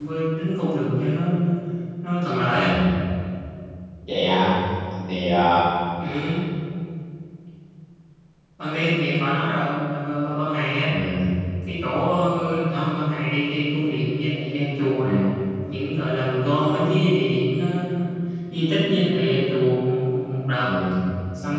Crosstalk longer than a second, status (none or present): none